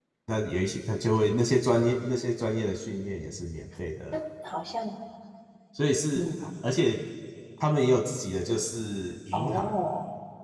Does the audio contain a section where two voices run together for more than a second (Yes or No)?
No